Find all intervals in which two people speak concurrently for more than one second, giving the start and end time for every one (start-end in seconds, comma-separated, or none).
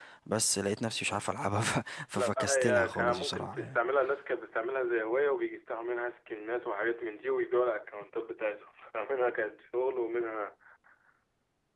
2.1-3.8